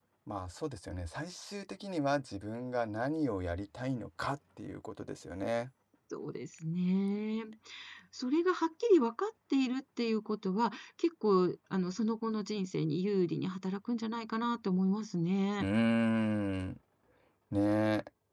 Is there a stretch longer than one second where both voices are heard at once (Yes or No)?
No